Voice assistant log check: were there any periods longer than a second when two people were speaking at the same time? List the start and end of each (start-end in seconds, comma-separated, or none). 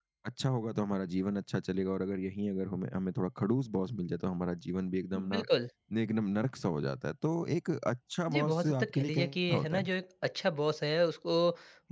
8.3-9.9